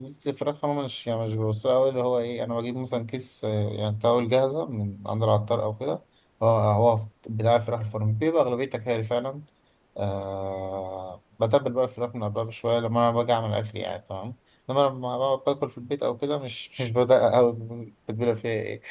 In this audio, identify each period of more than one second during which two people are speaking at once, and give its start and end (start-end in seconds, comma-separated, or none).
none